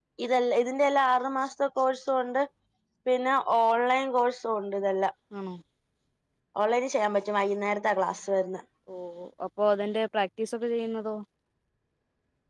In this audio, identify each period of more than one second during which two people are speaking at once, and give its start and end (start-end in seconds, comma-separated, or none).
none